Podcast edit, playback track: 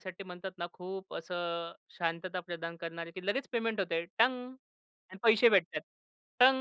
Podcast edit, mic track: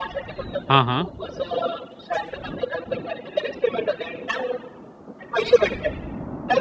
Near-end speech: present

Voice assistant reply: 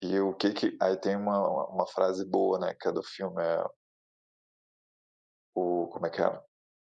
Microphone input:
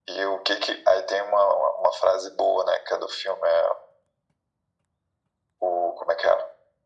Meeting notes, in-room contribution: none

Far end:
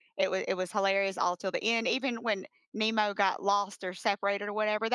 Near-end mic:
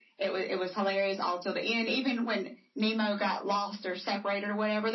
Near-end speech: none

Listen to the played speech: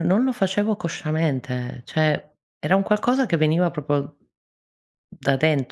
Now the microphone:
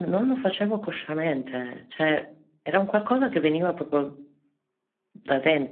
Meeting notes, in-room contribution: none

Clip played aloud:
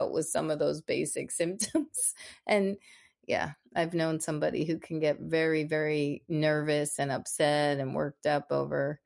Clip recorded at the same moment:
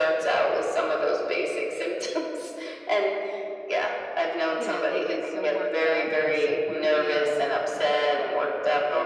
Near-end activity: present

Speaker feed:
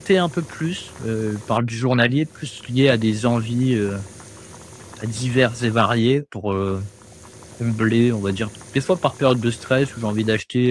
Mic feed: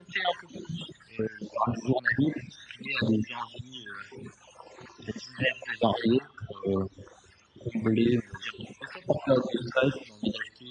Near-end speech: none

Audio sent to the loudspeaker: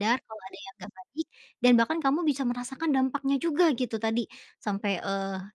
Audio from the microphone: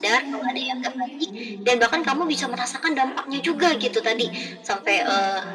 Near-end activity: present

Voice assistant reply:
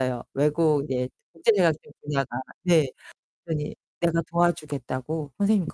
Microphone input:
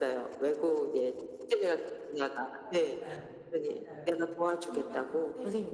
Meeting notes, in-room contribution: present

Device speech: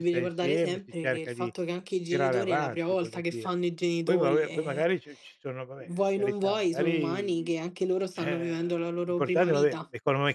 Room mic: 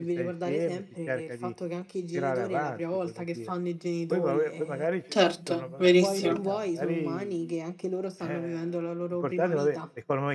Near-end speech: present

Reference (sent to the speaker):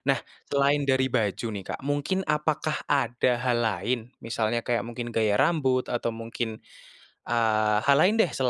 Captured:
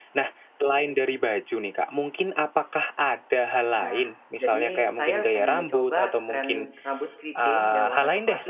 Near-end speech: present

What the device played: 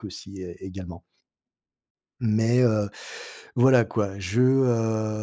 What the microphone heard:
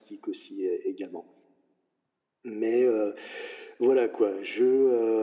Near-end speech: none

